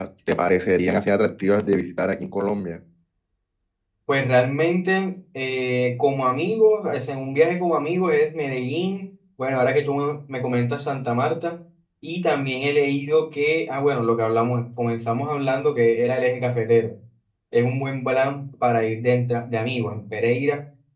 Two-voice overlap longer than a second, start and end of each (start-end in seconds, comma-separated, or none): none